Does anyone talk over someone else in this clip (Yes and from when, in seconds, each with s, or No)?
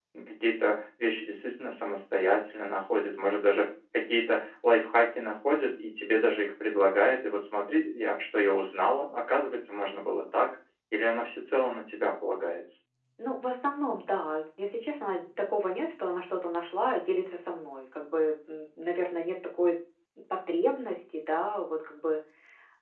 No